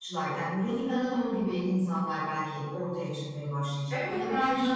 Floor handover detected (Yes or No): Yes